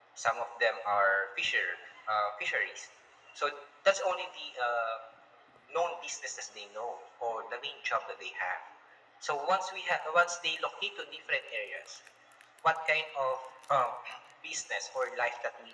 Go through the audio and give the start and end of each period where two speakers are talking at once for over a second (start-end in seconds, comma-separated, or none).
none